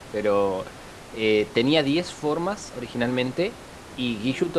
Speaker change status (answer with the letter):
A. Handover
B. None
B